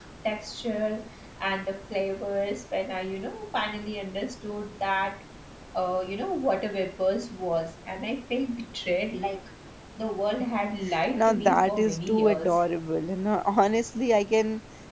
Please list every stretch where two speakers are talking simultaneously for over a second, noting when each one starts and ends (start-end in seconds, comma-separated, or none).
11.1-12.6